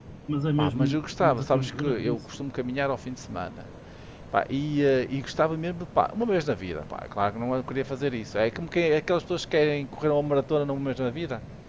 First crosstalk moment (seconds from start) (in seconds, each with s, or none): 0.6 s